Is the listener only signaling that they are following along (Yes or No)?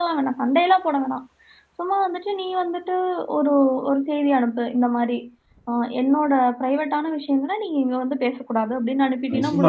No